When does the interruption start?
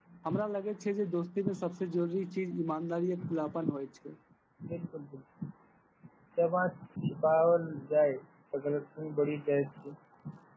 none

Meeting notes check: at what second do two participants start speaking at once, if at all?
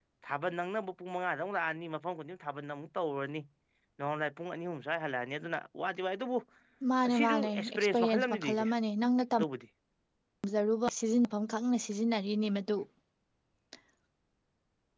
7.1 s

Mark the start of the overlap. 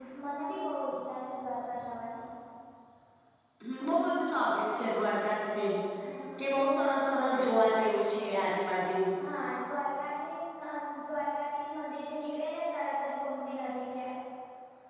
none

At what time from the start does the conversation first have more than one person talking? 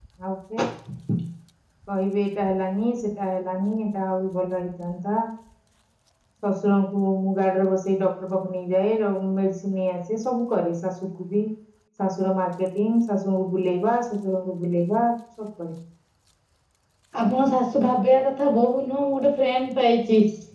none

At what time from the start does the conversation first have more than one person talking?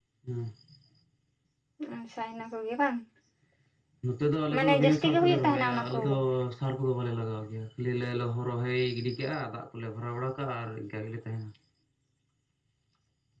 4.5 s

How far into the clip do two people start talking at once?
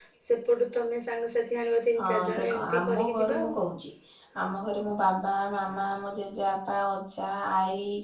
2.0 s

